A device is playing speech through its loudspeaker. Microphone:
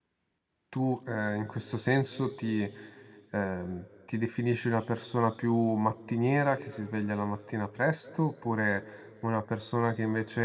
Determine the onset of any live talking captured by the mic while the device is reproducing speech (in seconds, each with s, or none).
0.7 s